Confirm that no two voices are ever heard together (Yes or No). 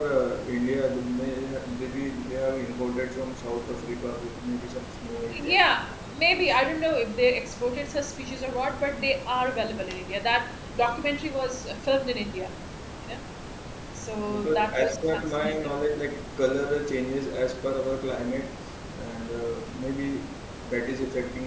No